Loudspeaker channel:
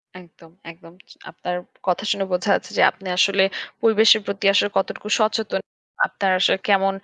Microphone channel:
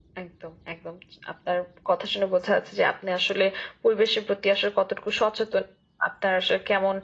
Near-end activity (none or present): none